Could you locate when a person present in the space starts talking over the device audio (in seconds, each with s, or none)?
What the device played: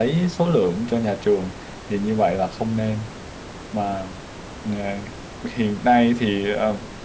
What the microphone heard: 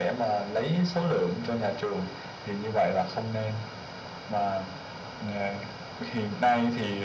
none